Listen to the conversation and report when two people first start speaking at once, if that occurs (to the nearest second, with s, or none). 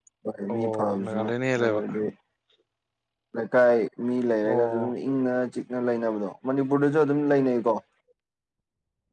1 s